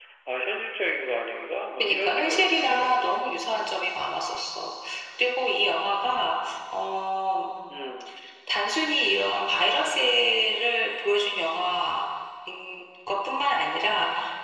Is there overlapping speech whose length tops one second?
Yes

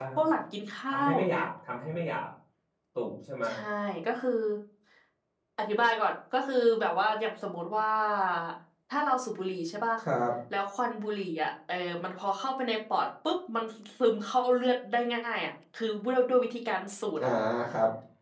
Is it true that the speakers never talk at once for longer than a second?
Yes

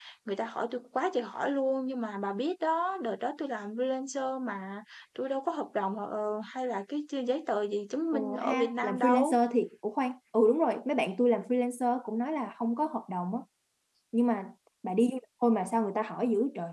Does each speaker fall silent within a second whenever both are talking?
No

